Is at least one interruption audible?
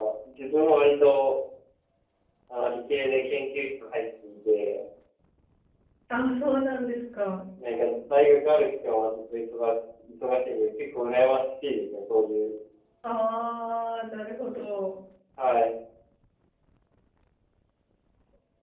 No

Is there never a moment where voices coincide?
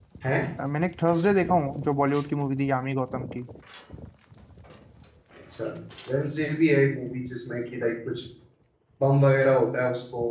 Yes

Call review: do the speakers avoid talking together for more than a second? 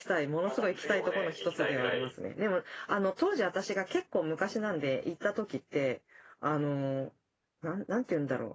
No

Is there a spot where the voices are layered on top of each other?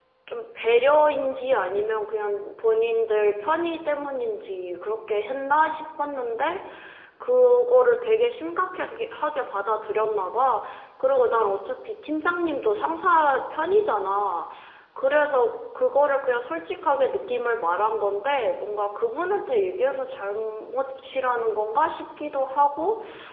No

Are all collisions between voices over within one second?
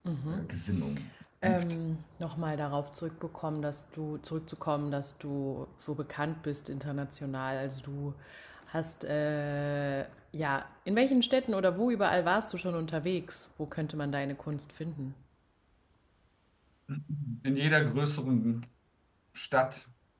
Yes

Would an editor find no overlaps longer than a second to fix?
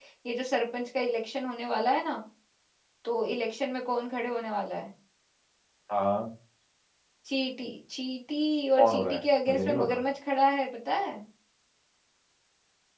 No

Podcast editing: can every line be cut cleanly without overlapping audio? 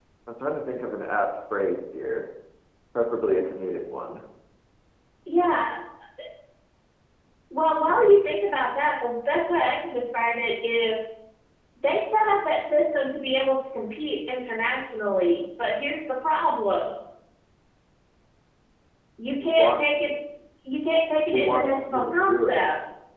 No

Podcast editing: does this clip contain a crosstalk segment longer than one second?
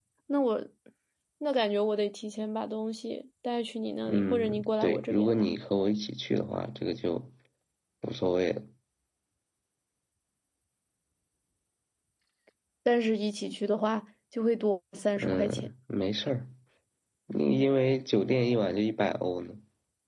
Yes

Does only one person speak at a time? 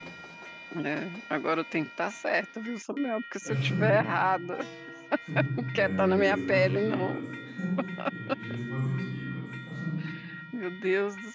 No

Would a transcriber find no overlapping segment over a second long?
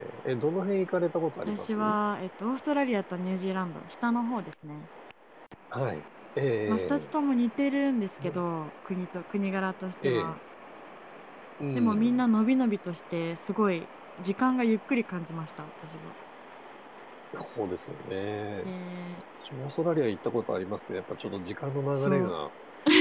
Yes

